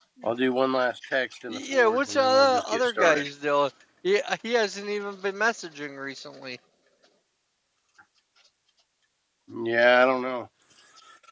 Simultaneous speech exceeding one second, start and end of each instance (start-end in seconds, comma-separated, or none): 1.5-3.3